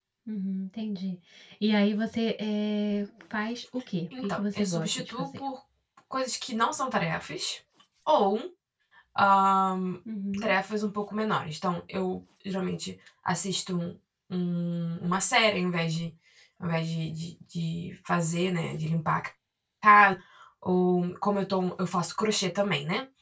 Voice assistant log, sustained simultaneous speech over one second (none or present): present